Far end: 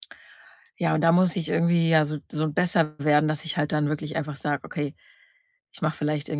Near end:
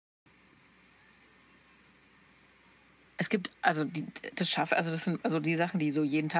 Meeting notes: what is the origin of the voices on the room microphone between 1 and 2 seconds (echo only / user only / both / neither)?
neither